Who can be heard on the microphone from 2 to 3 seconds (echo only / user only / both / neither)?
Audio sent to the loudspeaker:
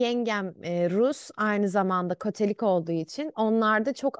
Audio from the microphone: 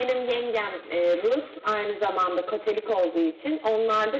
echo only